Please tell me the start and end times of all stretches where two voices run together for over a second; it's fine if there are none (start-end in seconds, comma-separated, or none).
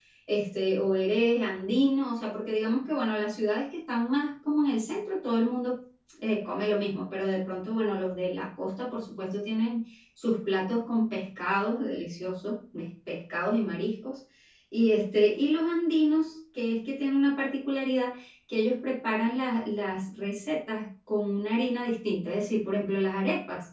none